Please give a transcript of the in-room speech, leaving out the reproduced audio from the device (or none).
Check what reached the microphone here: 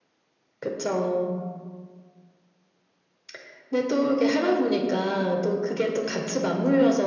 none